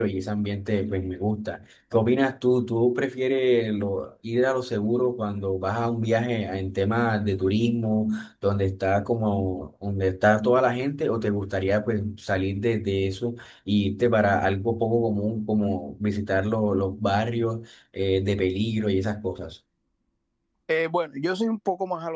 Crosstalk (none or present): none